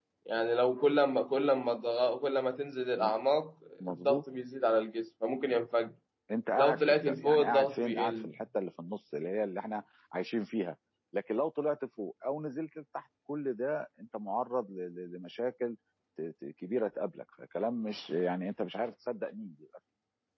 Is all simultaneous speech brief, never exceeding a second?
No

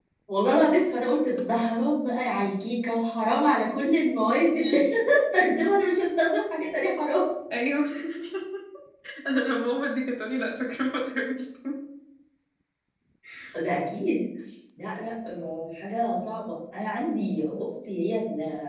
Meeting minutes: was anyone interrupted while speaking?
No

